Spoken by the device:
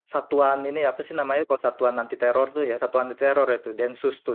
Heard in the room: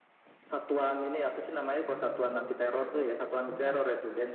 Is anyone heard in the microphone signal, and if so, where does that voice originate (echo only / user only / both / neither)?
both